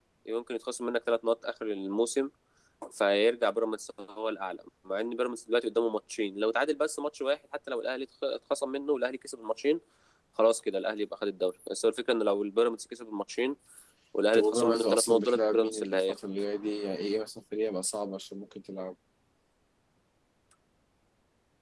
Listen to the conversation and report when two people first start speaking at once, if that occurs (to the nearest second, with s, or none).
14 s